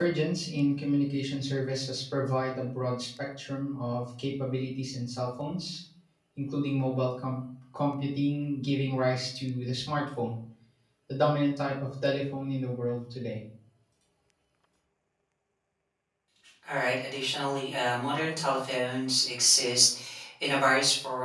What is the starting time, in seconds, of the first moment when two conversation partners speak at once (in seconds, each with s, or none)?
none